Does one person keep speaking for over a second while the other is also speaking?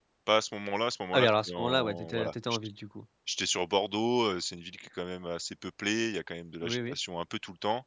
Yes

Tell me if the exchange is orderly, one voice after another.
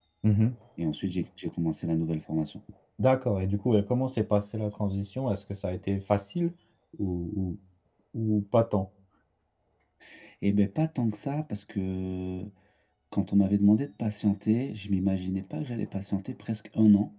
Yes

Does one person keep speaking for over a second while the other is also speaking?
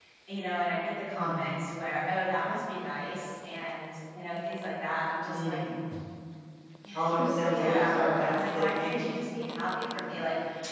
Yes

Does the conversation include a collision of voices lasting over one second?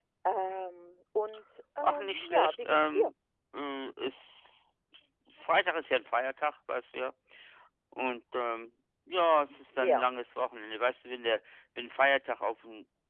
Yes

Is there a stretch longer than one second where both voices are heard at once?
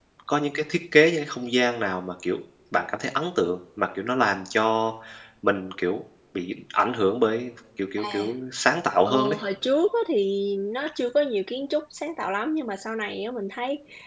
No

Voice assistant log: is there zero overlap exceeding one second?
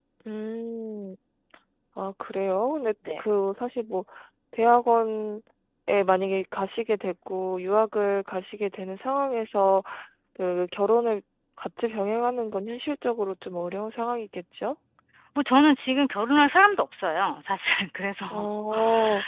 Yes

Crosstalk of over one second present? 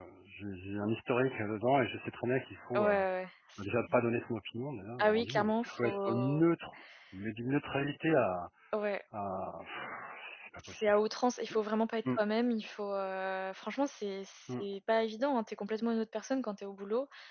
Yes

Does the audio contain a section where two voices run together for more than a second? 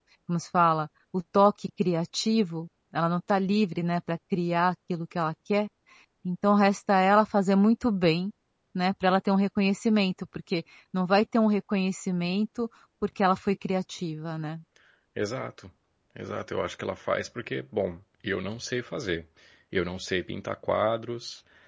No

